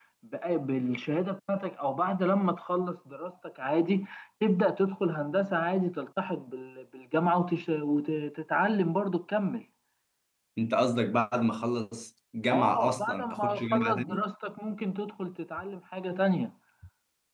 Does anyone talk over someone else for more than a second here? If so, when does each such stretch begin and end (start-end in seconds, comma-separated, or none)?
12.5-14.2